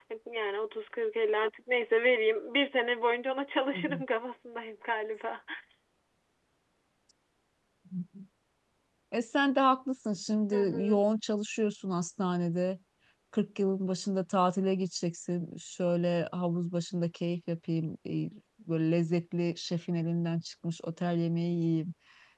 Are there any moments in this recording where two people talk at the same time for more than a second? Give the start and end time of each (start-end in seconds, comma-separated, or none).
none